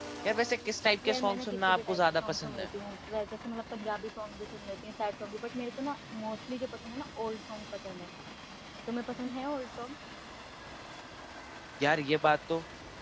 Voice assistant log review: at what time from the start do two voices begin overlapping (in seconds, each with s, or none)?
1.0 s